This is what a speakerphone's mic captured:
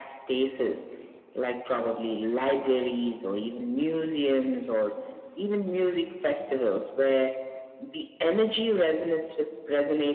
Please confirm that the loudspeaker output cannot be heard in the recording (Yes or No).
No